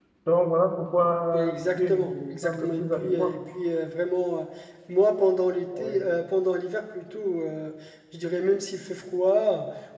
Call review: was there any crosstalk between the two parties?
Yes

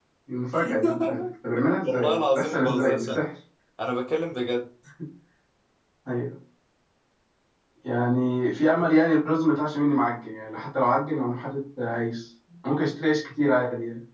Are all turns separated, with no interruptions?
No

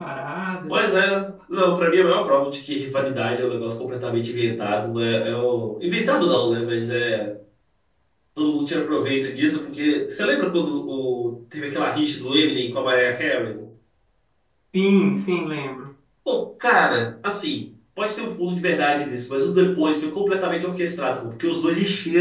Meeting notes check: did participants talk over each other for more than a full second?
No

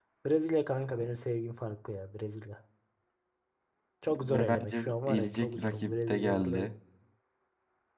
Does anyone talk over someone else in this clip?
Yes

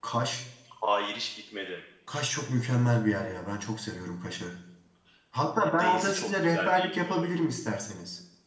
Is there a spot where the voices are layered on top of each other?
Yes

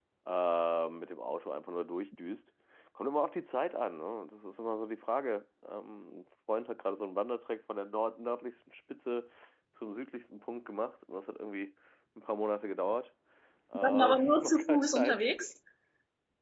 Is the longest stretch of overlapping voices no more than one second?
No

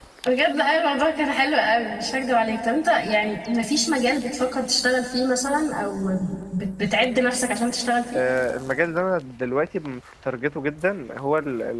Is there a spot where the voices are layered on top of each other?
No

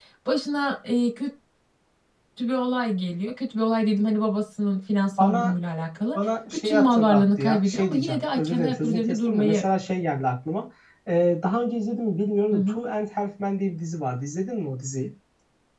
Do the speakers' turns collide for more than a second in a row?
Yes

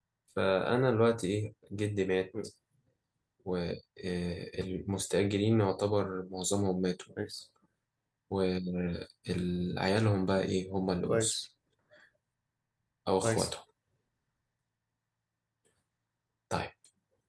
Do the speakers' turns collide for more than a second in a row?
No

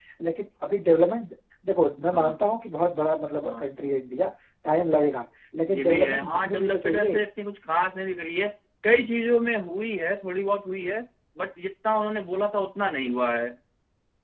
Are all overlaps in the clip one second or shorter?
No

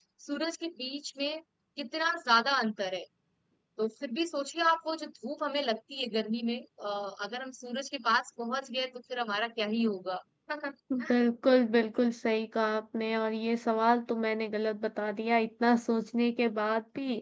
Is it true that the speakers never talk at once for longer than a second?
Yes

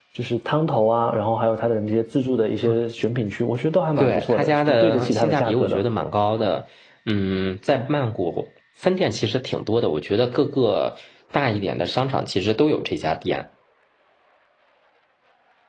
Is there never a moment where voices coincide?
No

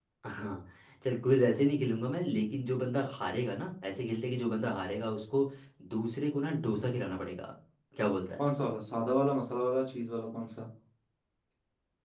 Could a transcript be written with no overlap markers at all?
Yes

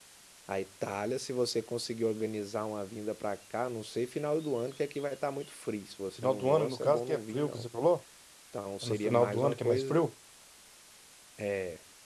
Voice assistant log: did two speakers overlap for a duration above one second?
Yes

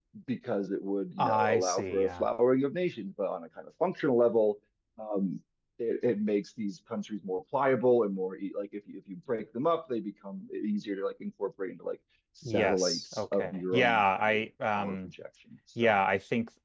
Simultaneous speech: Yes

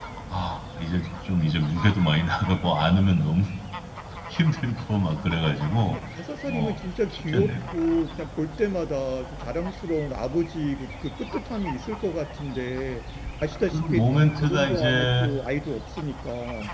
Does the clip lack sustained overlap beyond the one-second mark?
No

